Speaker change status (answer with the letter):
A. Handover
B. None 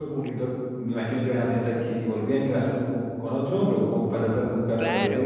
A